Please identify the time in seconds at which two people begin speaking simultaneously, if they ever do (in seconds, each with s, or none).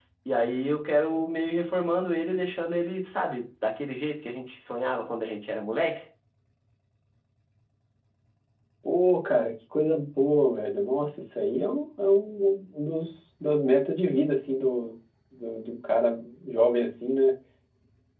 none